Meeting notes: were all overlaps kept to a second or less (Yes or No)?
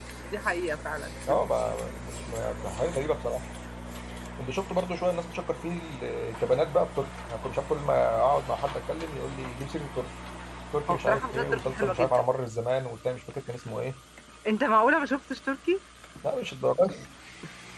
No